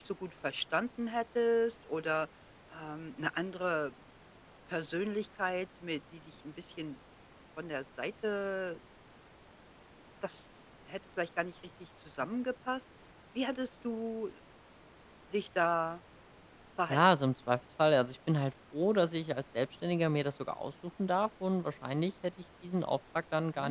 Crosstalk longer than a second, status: none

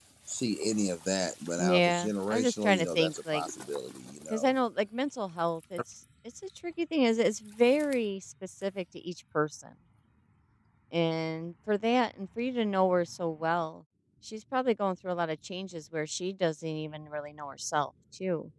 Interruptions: present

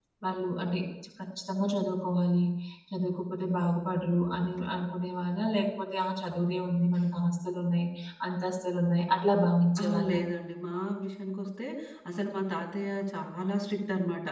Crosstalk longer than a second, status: none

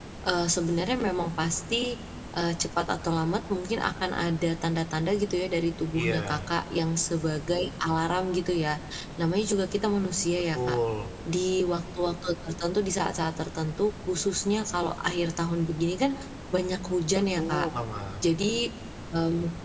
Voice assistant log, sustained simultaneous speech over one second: none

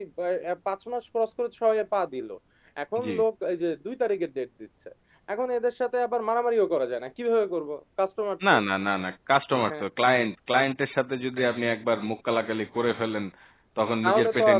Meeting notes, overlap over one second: none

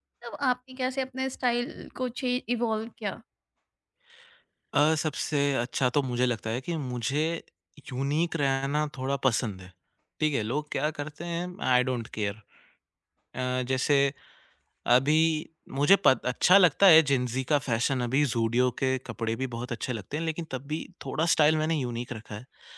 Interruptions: none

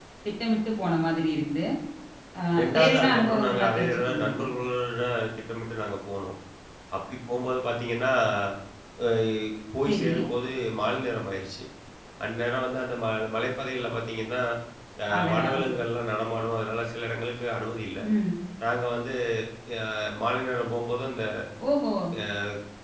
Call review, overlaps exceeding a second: present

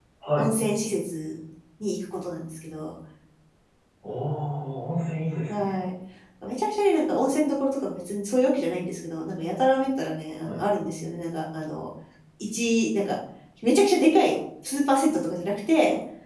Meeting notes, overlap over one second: none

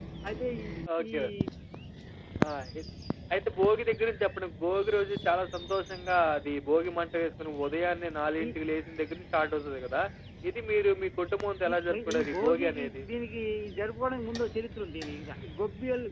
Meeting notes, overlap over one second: present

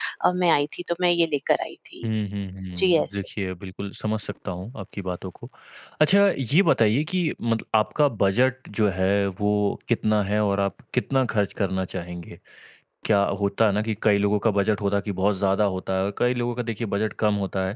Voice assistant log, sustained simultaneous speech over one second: none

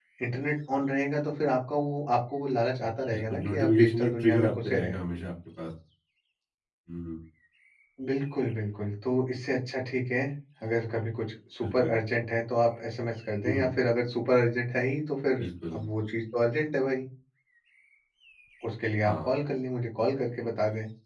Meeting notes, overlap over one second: present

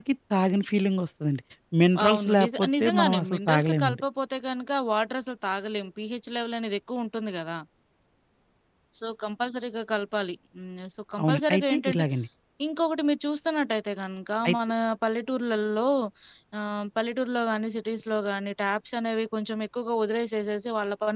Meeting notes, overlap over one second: present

